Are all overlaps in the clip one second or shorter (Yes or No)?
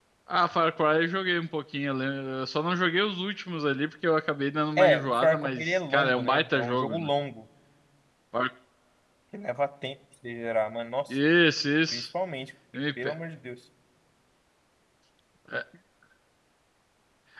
No